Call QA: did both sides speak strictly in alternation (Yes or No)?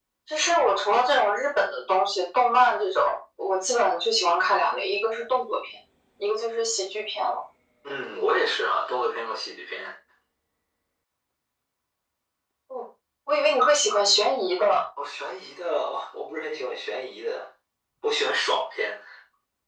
Yes